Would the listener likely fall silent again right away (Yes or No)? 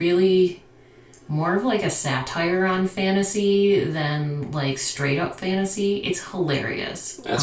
No